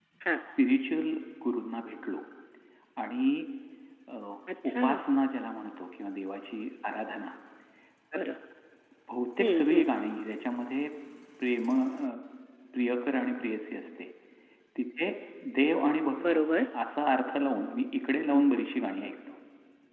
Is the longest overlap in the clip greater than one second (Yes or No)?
No